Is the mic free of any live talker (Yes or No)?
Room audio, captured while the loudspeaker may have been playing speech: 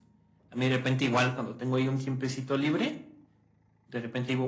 Yes